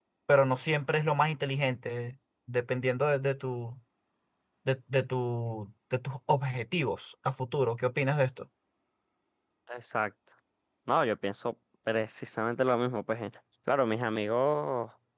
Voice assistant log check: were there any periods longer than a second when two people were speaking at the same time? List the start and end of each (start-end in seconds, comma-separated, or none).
none